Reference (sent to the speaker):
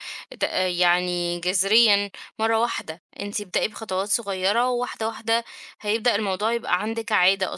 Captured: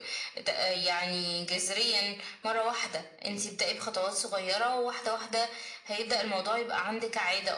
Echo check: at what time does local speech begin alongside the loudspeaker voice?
none

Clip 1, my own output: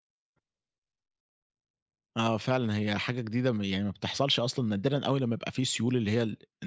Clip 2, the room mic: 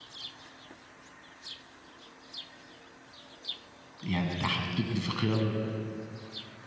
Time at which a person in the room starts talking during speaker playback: 4 s

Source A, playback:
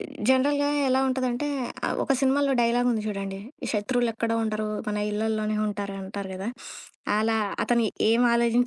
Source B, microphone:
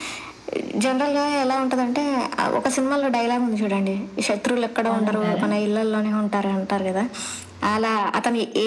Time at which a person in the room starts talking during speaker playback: 5 s

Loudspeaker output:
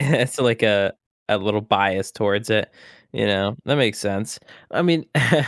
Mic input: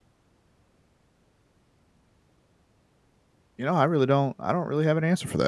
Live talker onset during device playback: 4 s

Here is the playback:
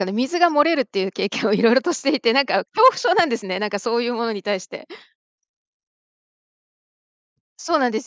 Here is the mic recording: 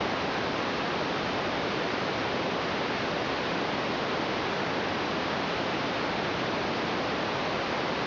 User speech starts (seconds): none

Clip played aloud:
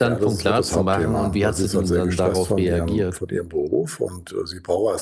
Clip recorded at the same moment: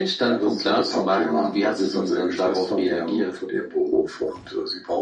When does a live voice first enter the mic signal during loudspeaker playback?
none

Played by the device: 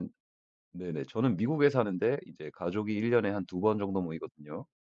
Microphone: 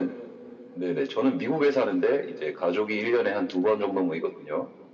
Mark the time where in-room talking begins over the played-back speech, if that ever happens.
none

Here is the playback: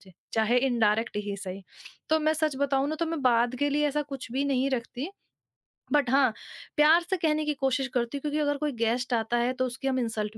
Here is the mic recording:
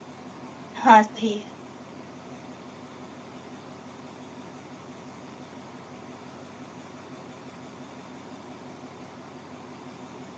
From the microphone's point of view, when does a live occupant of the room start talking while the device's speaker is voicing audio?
1 s

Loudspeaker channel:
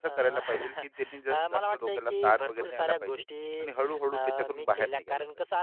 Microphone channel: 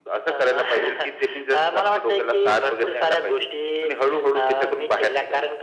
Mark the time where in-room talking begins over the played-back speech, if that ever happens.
none

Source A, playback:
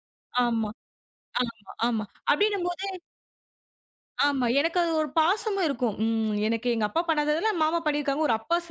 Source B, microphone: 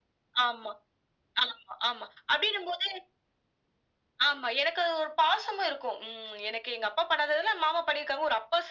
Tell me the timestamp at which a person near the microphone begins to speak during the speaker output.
none

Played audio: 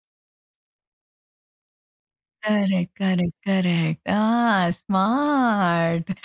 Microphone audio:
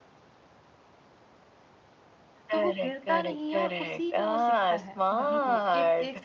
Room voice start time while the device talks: 2 s

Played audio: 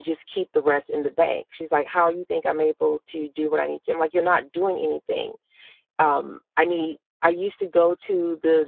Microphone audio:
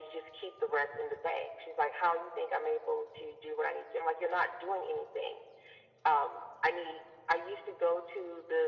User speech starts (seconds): none

